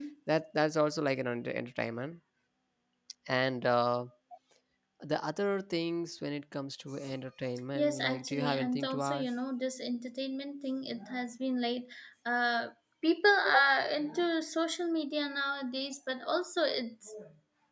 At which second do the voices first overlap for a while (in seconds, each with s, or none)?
7.8 s